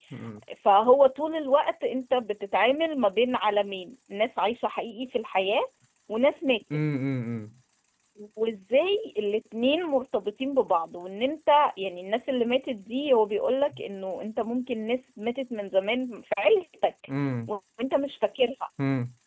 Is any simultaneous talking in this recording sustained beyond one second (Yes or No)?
No